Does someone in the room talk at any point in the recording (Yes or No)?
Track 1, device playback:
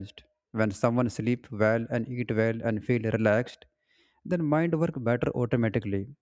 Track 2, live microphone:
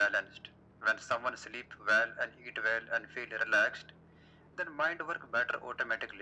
No